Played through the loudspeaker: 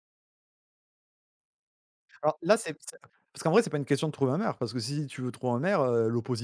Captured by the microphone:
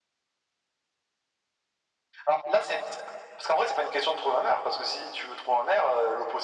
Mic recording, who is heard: echo only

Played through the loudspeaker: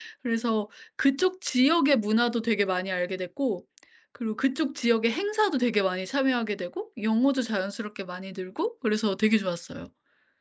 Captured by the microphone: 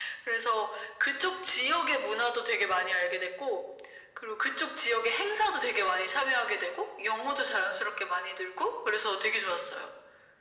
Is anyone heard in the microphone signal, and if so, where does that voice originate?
echo only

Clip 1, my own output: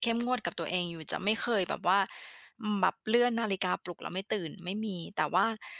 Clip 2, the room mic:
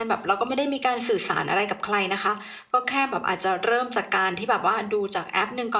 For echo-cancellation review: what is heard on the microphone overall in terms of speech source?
user only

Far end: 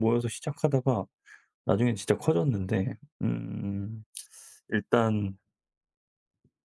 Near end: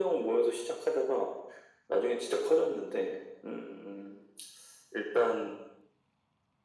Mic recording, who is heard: echo only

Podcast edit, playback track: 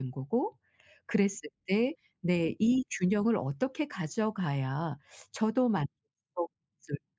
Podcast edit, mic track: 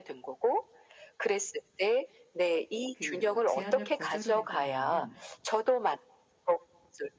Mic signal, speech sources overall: both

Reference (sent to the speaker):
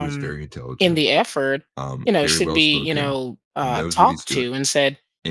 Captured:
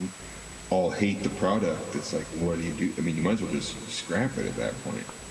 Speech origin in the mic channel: user only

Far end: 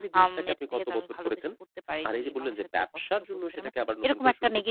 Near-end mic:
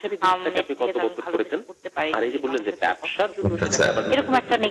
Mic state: both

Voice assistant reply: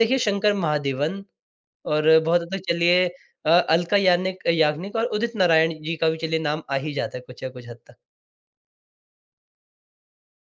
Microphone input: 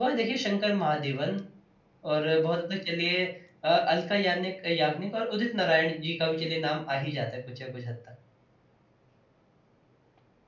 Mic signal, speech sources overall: echo only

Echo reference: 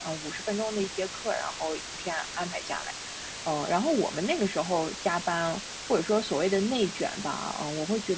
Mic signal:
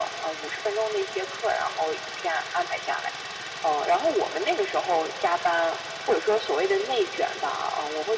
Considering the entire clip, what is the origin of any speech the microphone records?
echo only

